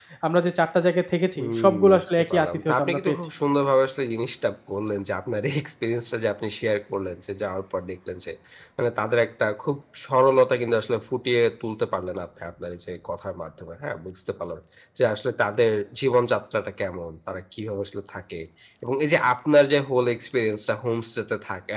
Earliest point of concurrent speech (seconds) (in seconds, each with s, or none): 1.4 s